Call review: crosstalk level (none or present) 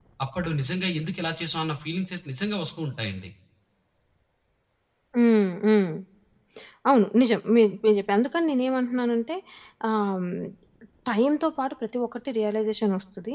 none